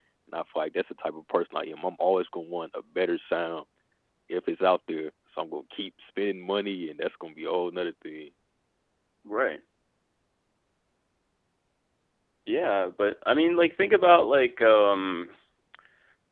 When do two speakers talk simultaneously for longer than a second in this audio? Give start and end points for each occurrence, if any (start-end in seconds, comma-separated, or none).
none